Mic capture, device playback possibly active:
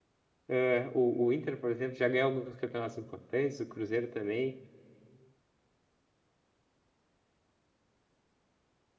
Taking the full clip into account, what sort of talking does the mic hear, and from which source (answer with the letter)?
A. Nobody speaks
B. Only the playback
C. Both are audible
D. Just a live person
D